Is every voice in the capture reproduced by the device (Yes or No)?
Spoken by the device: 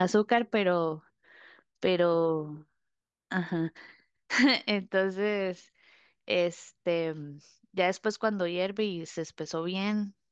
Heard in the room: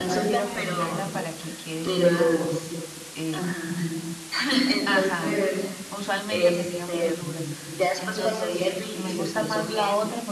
No